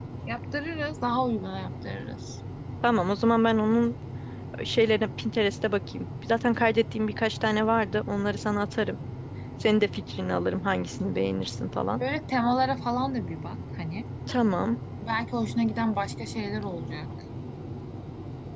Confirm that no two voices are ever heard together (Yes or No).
Yes